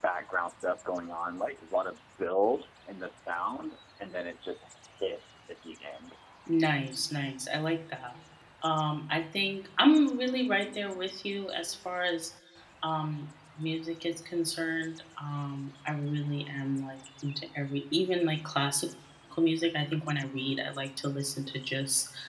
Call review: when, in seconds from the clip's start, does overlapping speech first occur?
none

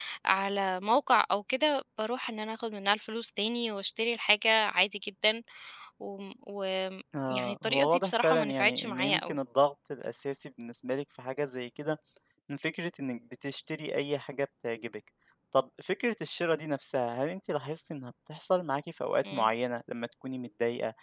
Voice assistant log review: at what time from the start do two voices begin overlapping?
7.1 s

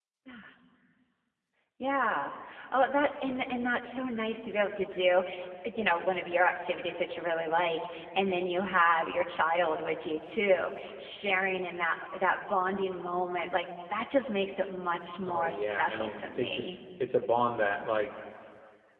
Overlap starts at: 15.2 s

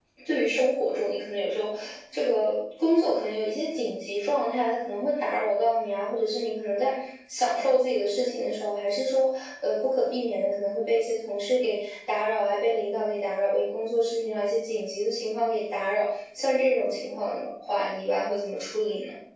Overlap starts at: none

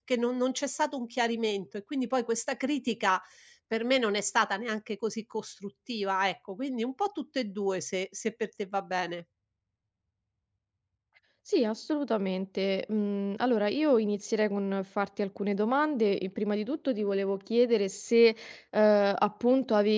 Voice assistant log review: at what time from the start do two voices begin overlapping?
none

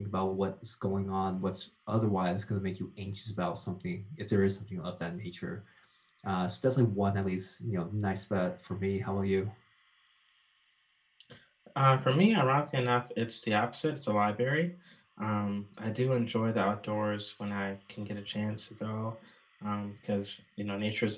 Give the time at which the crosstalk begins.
none

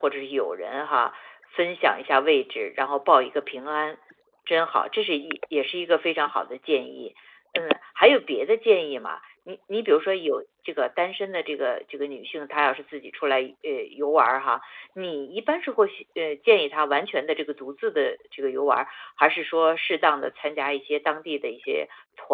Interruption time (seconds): none

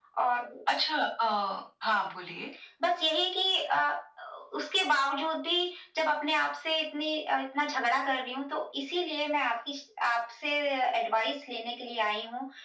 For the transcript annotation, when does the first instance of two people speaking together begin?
none

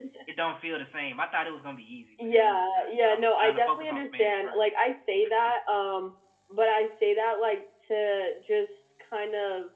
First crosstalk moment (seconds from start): 2.2 s

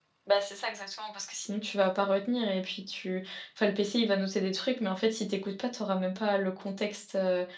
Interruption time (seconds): none

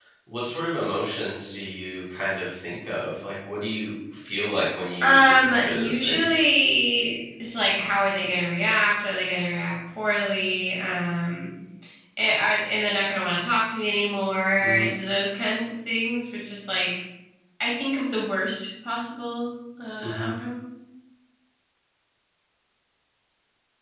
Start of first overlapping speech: 5.0 s

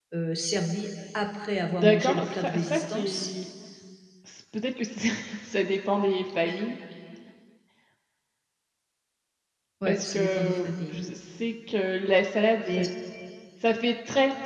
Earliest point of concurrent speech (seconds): 1.7 s

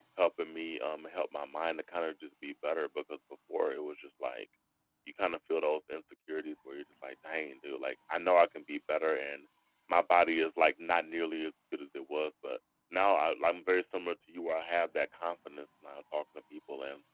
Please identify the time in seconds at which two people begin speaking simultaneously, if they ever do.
none

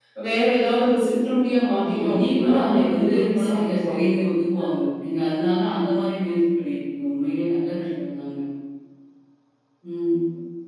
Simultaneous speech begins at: 1.7 s

